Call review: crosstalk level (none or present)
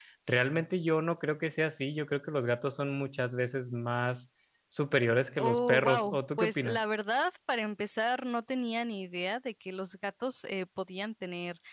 present